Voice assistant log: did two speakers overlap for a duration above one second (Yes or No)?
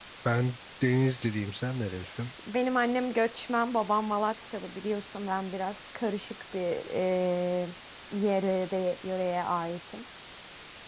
No